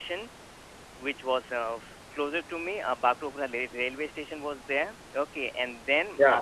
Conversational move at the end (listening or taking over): listening